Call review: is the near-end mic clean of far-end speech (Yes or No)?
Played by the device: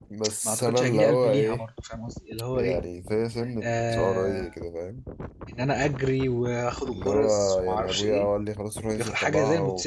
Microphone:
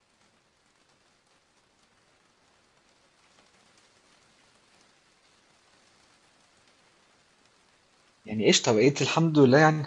Yes